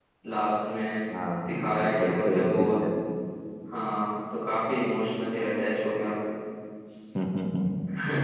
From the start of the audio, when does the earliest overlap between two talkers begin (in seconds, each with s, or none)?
1.4 s